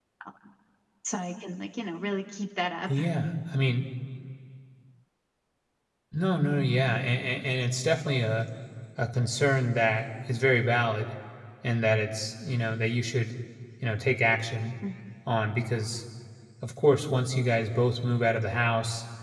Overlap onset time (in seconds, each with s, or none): none